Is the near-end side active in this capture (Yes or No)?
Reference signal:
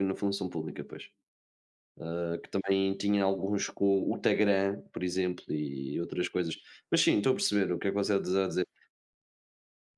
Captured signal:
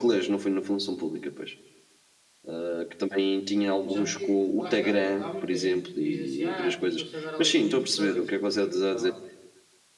Yes